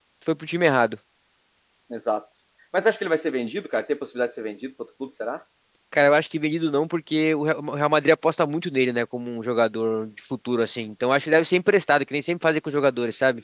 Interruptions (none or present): none